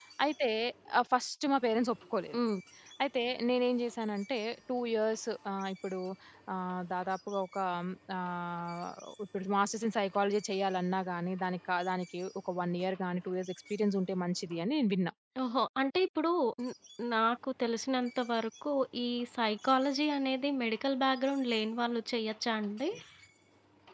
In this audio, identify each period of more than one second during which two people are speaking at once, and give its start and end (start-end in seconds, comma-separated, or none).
none